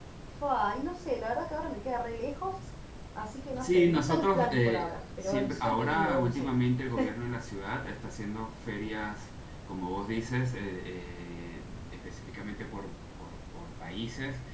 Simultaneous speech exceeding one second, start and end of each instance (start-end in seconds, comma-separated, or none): 3.6-6.5